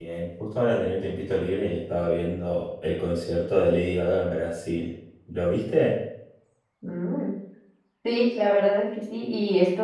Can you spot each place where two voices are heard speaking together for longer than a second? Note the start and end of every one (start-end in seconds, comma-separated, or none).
none